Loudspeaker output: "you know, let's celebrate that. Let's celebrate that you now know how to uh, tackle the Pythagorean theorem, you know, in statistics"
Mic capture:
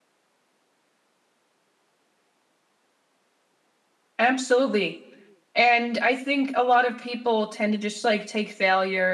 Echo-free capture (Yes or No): Yes